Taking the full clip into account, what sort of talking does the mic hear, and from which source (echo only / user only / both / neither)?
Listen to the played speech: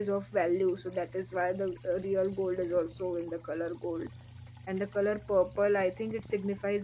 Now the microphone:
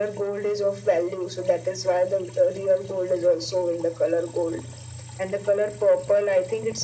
echo only